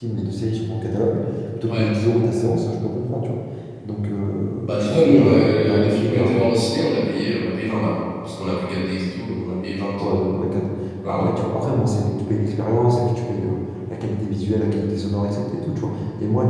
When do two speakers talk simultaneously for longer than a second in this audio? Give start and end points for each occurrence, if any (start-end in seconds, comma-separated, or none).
4.7-6.4